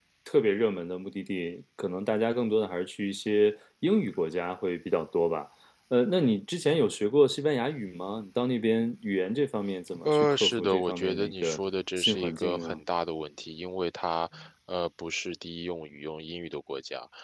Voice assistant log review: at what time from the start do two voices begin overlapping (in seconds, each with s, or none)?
10.1 s